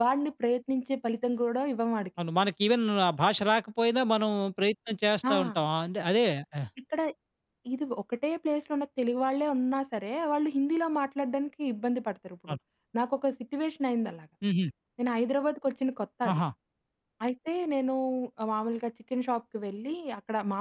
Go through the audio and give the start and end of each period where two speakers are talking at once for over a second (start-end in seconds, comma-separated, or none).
none